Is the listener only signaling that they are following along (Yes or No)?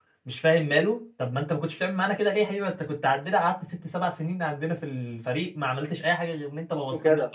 Yes